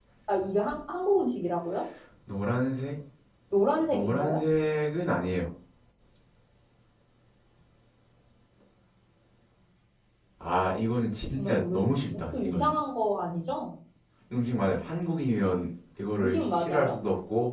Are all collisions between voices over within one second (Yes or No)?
No